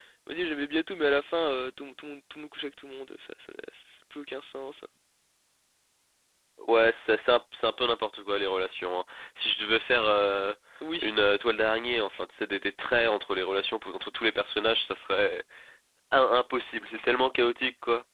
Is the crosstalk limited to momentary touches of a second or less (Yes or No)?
Yes